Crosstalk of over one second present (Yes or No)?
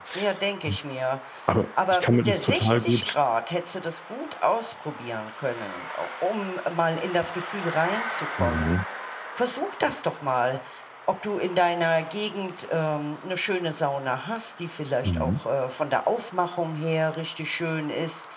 Yes